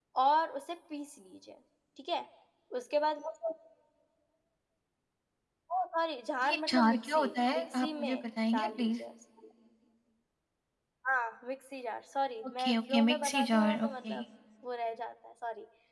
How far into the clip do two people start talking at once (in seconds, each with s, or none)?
6.4 s